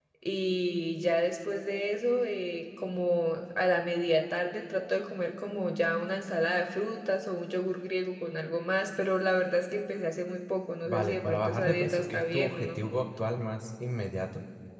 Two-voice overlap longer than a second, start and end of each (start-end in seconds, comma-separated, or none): 10.8-12.9